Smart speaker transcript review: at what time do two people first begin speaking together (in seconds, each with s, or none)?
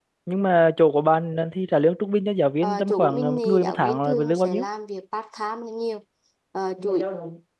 2.6 s